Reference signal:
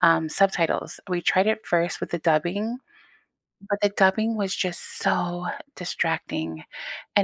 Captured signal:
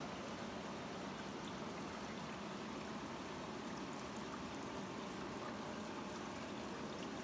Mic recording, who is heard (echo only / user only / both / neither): neither